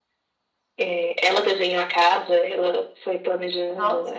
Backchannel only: Yes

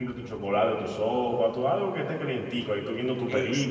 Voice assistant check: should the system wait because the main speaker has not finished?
No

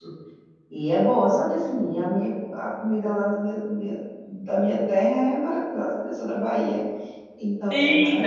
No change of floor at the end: No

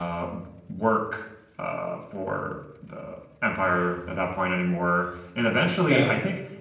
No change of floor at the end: Yes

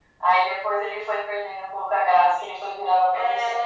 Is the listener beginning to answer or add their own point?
Yes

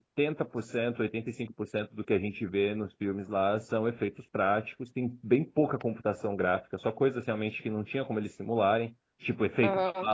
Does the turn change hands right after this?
No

